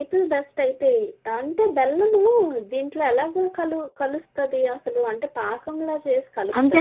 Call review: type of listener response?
taking over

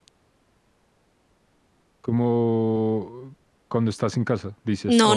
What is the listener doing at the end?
taking over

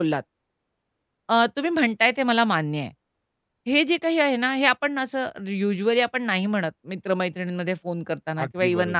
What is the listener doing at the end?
listening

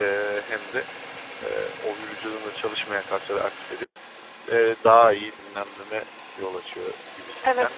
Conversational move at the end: taking over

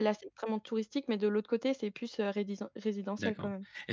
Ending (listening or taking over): taking over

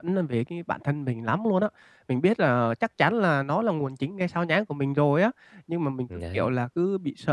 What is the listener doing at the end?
listening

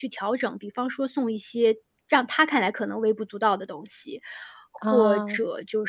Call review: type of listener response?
listening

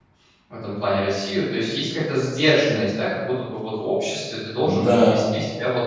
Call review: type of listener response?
listening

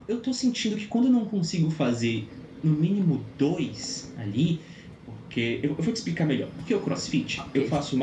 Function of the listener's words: listening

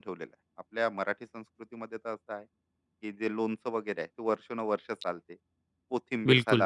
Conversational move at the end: listening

